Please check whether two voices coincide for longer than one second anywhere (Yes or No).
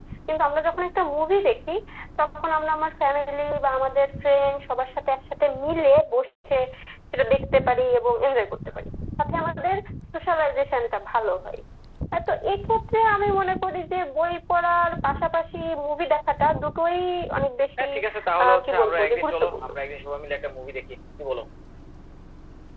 Yes